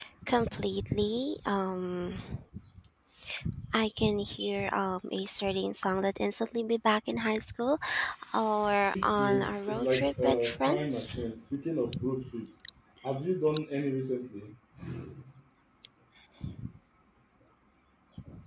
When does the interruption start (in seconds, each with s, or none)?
9.0 s